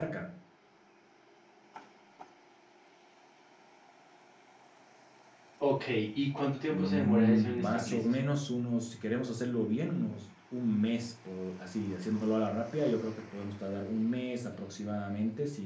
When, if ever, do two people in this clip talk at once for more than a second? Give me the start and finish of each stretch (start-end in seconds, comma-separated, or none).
6.7-8.0